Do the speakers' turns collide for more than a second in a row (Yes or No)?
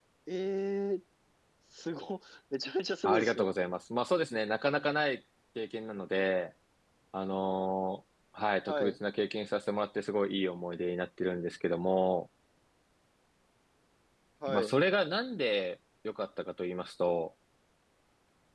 No